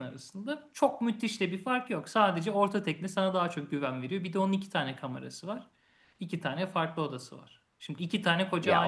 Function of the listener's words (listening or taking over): listening